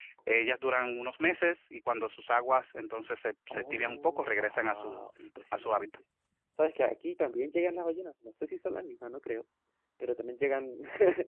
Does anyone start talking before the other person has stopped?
Yes, from 3.5 s

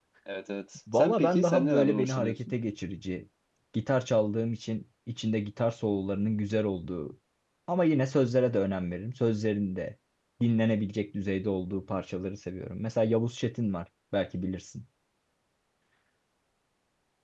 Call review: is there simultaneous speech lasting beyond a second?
Yes, from 0.9 s

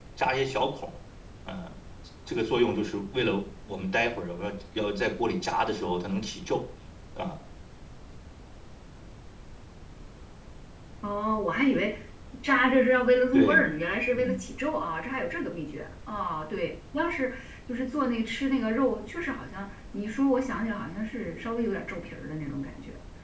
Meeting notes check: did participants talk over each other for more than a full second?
No

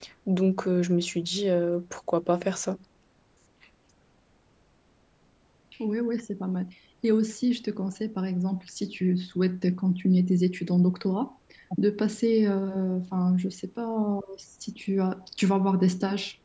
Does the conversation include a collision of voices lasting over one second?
No

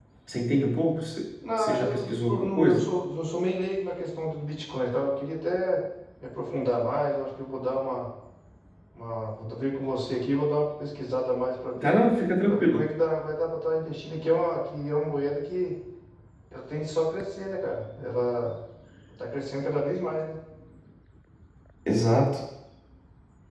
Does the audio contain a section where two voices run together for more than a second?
Yes, from 1.6 s

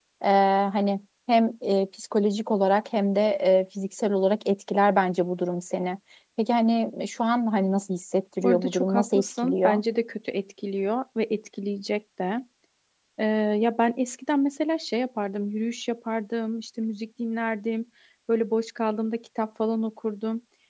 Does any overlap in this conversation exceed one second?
Yes, from 8.4 s

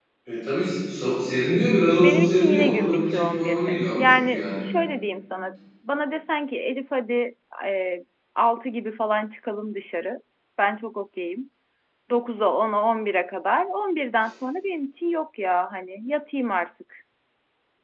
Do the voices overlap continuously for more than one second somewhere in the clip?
Yes, from 2.0 s

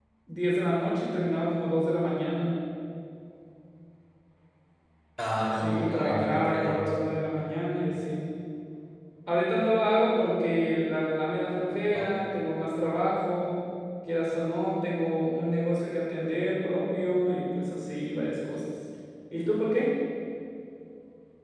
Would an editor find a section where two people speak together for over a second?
Yes, from 5.6 s

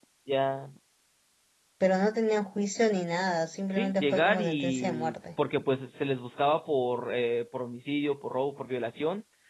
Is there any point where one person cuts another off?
Yes, from 3.8 s

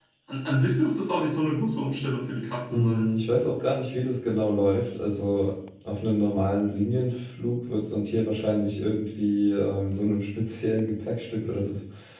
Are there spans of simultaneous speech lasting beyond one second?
No

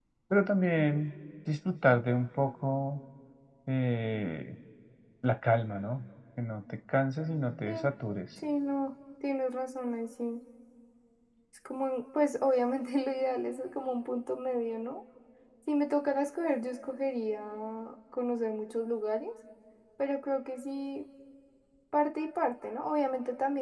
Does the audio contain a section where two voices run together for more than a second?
No

